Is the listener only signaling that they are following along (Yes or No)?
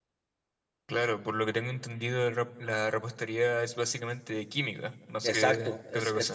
No